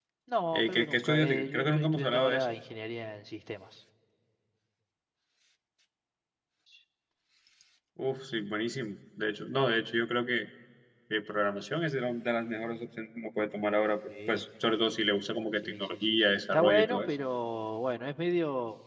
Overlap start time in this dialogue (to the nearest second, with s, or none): 1 s